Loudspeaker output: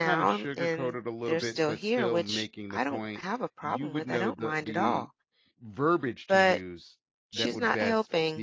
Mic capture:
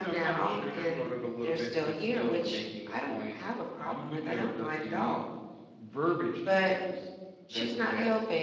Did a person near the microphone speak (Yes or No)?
No